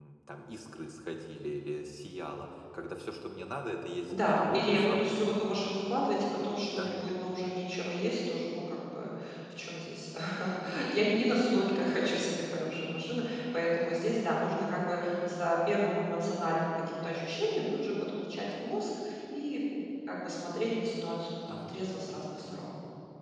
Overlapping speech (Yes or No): Yes